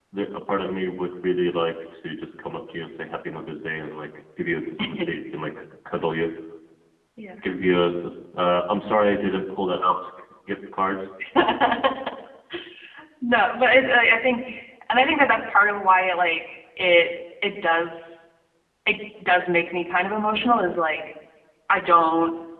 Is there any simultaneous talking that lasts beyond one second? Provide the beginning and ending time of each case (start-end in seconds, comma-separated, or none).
none